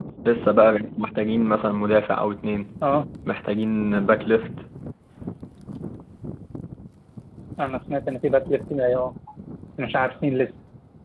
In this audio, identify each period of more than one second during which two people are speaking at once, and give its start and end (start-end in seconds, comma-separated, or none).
none